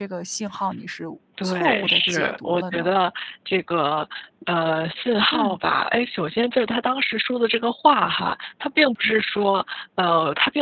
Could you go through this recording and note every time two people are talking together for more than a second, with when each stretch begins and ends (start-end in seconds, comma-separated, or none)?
1.4-2.9